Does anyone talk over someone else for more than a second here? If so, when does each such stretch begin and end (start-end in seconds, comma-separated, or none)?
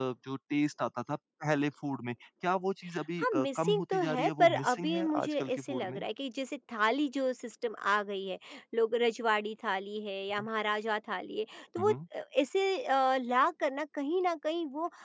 3.2-6.0